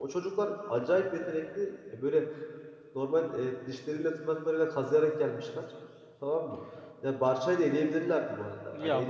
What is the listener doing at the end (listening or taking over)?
taking over